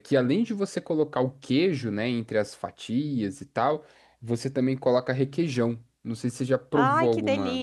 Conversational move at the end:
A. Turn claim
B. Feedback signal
A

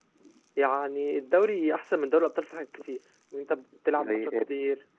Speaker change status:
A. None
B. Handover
A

